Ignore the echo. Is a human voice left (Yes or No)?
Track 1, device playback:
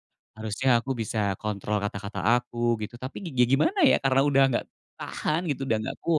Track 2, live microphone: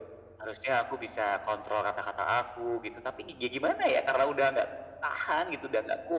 No